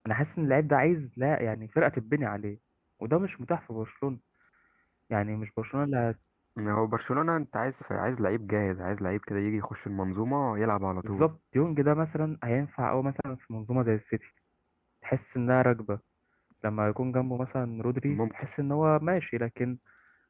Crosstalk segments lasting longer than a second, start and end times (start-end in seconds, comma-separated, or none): none